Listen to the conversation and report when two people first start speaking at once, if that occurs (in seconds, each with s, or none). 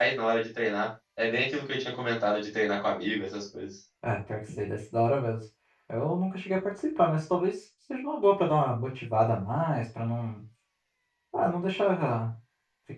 none